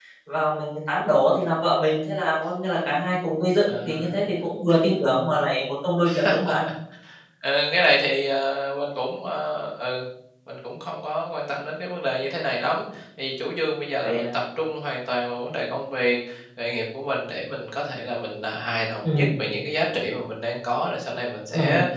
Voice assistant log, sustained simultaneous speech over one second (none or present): none